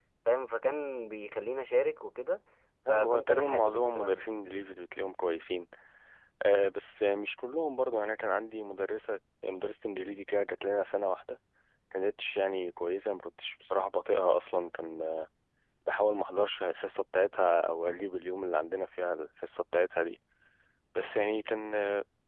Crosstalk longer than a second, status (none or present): present